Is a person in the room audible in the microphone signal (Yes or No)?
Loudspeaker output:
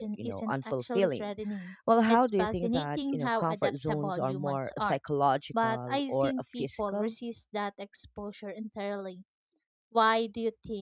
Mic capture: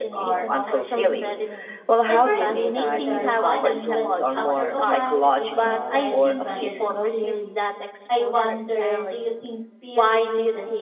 Yes